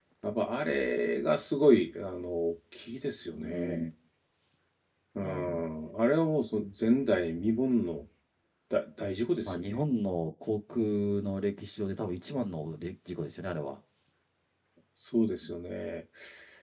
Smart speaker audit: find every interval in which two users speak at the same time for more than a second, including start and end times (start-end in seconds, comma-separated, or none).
none